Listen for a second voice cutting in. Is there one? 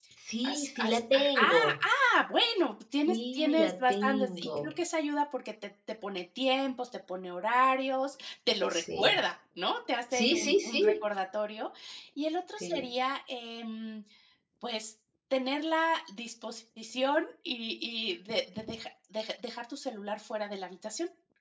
Yes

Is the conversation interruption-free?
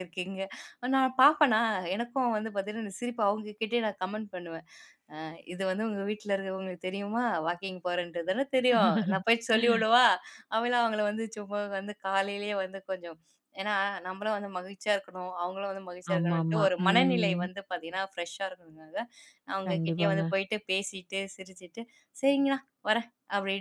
No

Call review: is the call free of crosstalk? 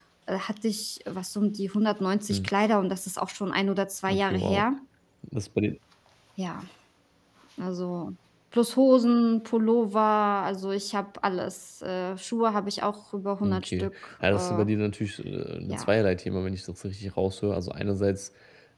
No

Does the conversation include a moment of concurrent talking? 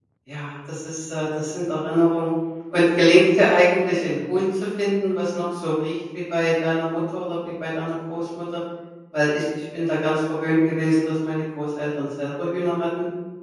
No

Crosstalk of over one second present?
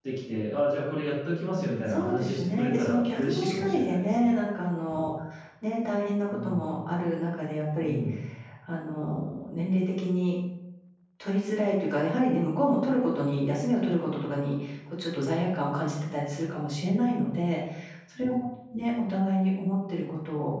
Yes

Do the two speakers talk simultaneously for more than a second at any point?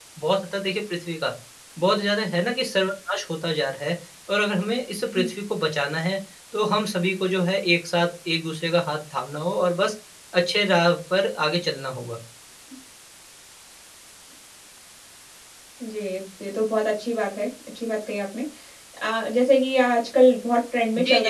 No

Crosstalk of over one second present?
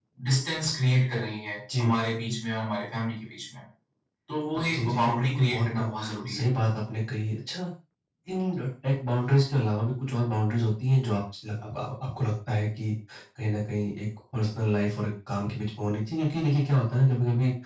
Yes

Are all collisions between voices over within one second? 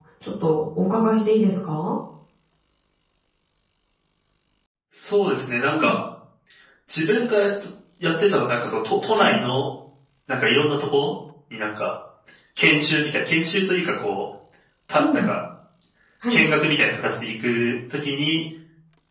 Yes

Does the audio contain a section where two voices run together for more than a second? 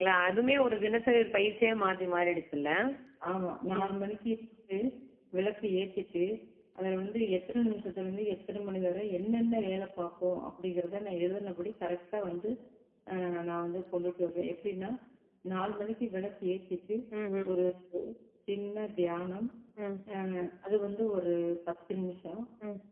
No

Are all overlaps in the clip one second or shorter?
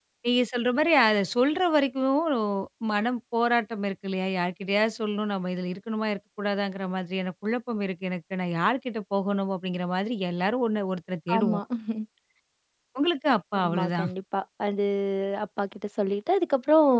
Yes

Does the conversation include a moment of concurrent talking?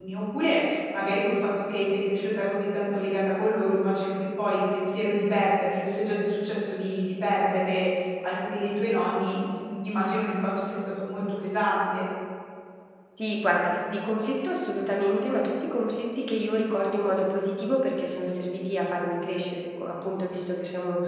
No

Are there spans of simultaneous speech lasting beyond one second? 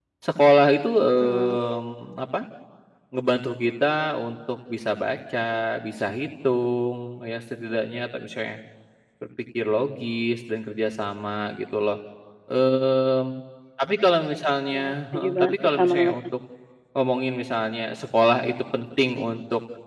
Yes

